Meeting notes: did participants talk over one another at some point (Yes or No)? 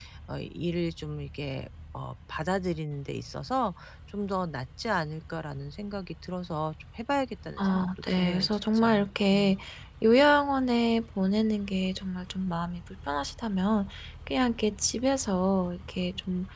Yes